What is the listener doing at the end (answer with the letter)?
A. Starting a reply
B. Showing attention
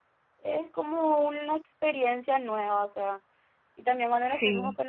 B